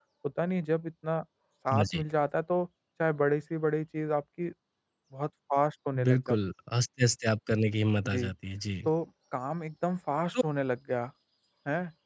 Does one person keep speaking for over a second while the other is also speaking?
No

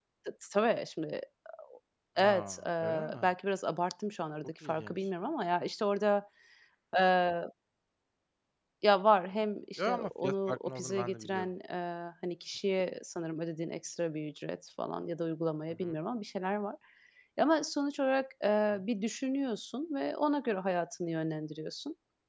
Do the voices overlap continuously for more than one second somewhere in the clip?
Yes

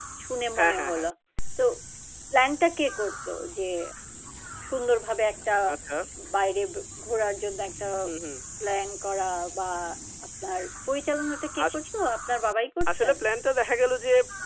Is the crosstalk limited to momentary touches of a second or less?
Yes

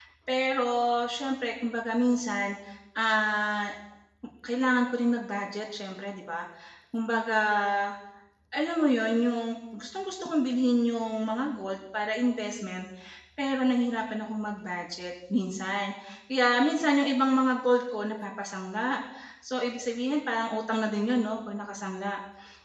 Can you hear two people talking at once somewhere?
No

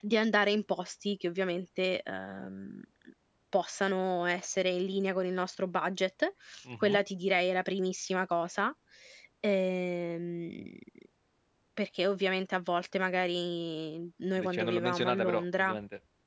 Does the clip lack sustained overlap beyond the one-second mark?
No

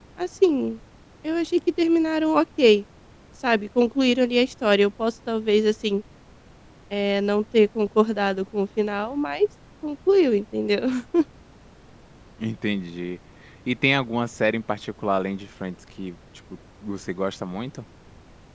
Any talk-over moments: No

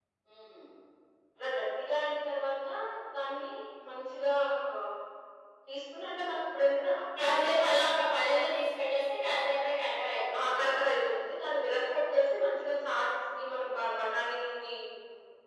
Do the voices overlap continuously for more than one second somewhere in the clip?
No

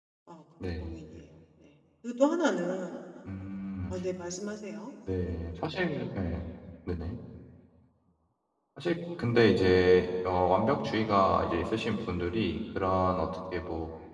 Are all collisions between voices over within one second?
Yes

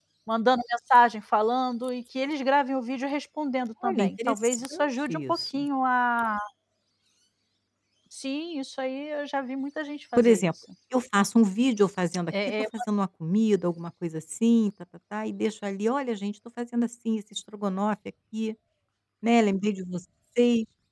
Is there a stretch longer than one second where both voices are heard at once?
Yes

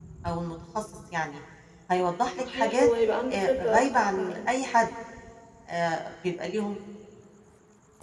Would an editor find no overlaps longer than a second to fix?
No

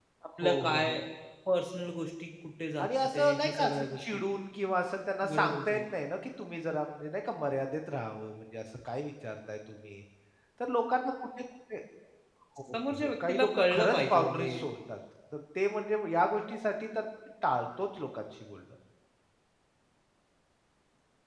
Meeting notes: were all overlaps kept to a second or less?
No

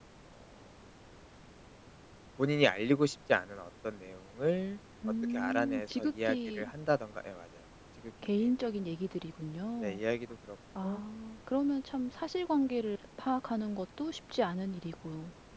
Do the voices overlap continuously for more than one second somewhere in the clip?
Yes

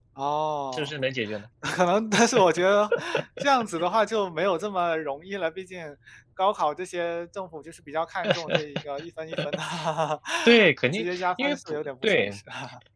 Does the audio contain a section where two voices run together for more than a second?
Yes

